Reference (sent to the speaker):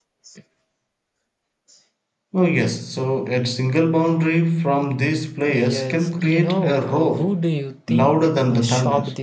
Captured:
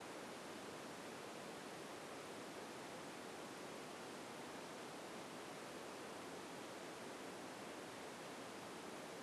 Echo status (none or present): none